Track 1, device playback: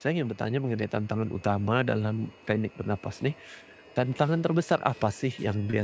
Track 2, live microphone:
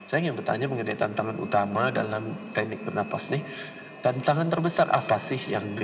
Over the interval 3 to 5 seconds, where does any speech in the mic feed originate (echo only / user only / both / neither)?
echo only